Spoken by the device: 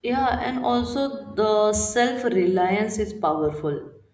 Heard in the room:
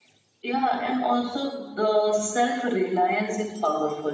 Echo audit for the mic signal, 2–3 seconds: echo only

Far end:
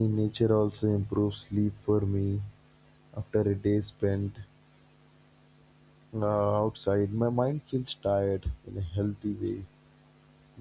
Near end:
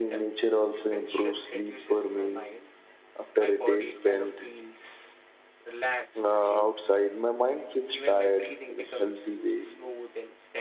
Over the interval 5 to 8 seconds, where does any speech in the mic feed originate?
both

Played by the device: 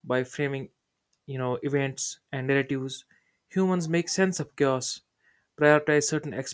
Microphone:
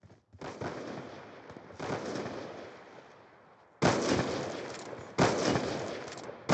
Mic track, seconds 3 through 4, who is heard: neither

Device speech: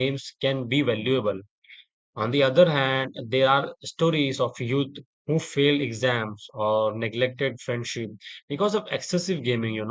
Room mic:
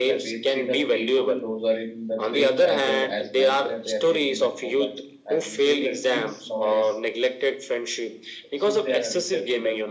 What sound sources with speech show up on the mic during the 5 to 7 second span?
both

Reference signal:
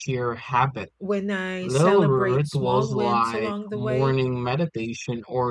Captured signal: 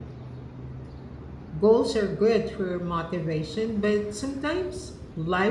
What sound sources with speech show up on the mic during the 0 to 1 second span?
neither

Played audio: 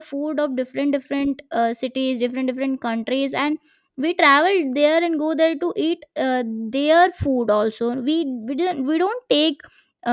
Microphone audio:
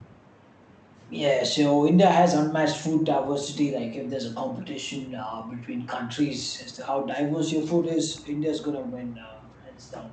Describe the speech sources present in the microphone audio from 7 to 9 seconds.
user only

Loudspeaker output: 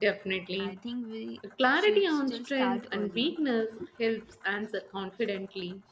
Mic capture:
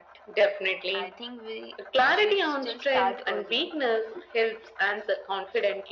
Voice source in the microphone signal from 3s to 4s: echo only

